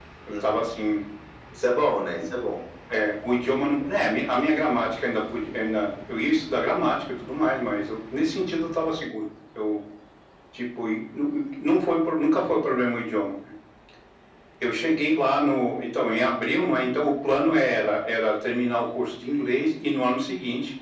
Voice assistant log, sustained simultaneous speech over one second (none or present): none